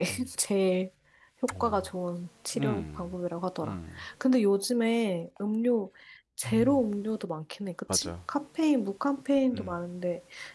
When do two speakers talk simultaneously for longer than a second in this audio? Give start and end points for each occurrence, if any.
none

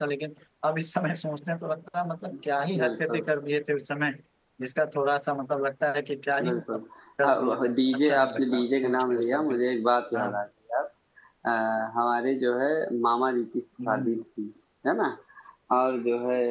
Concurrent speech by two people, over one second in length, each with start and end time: 7.2-9.6

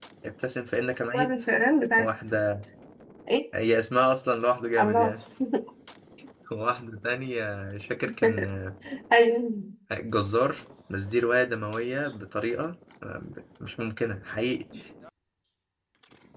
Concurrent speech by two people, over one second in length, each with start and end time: none

